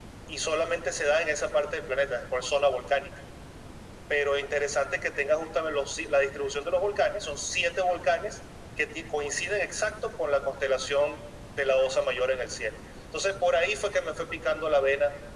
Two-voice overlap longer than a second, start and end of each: none

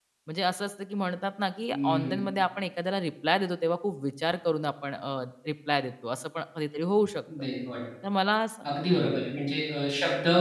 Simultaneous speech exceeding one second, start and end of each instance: none

